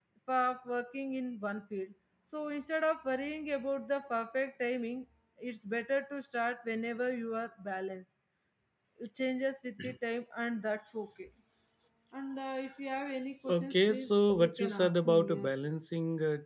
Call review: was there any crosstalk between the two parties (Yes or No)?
Yes